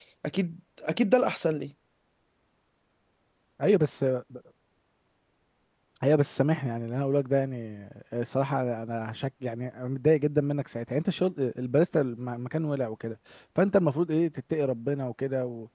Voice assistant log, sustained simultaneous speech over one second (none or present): none